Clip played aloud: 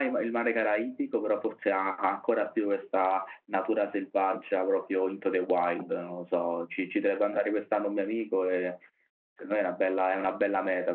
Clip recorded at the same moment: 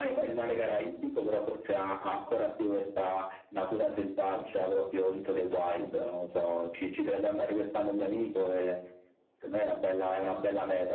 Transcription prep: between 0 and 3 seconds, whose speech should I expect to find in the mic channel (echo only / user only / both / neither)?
echo only